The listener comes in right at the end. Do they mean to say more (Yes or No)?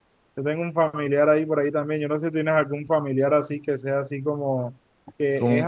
No